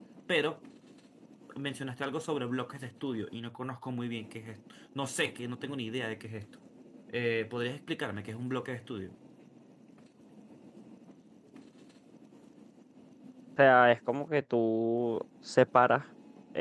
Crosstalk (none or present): none